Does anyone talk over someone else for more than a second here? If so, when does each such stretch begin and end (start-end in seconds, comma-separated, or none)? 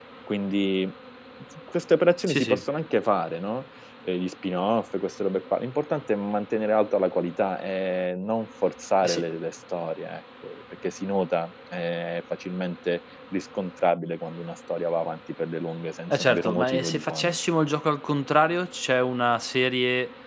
16.1-17.4